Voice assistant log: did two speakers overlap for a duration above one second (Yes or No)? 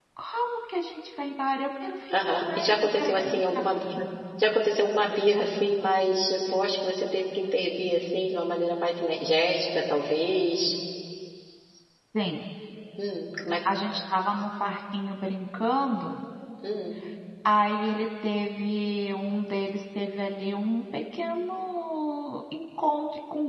Yes